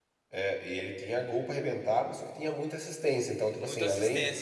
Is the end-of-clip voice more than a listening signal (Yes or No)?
No